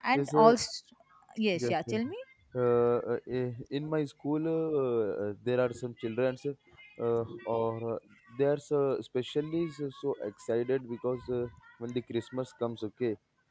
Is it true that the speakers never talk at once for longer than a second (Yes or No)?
Yes